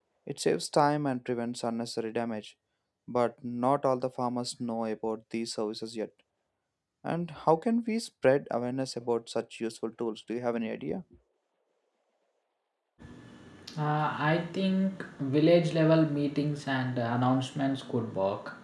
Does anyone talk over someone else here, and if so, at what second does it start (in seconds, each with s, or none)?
none